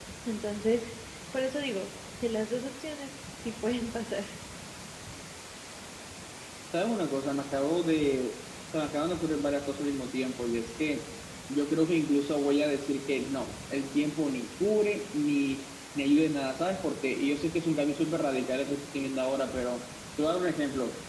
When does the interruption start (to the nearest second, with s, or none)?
none